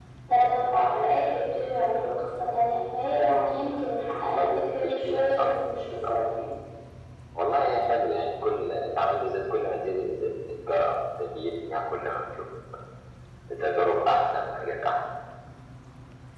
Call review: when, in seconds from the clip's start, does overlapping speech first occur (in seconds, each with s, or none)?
4.1 s